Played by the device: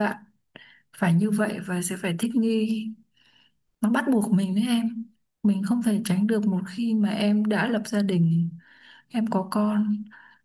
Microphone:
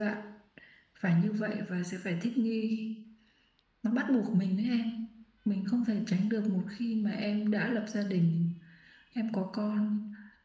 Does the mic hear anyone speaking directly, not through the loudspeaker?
No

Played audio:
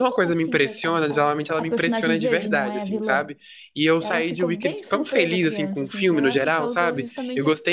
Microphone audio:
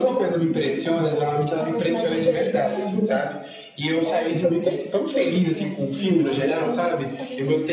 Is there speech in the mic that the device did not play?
No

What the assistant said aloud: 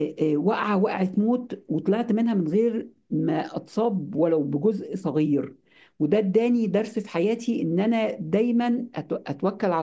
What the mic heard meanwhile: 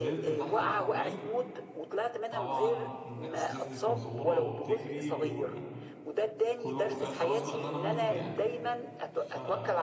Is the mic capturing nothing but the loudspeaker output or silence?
No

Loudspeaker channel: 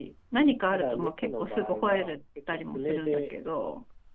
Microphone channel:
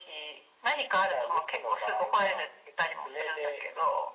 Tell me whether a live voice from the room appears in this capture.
No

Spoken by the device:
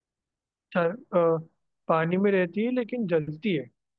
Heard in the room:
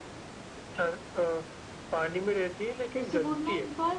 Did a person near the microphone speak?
Yes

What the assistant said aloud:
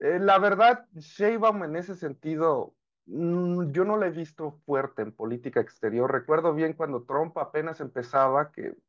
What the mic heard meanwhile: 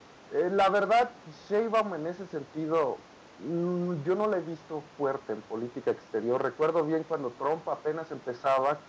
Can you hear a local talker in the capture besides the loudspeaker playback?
No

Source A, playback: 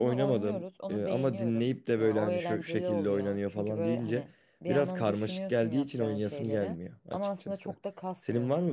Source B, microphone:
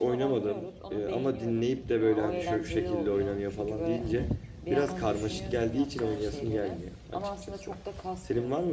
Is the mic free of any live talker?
Yes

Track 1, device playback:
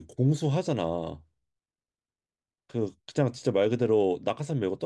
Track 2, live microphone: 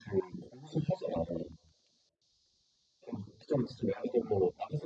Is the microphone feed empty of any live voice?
Yes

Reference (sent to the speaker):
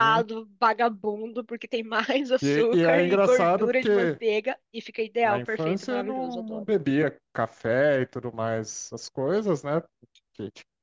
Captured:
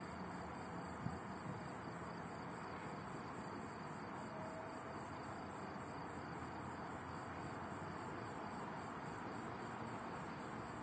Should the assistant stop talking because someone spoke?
No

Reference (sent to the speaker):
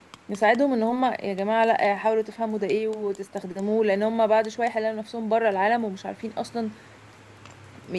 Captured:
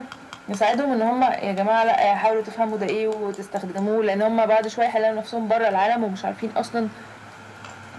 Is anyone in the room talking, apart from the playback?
No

